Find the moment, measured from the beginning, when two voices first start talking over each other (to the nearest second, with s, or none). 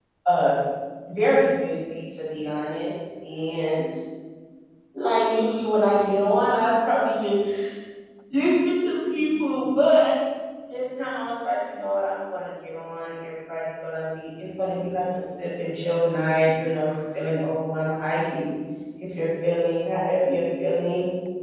none